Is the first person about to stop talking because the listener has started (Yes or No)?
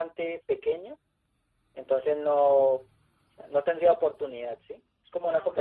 No